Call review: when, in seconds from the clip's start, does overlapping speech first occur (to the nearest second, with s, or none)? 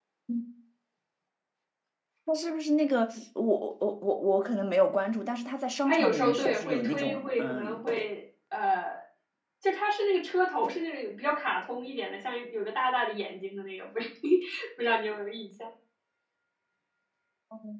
6 s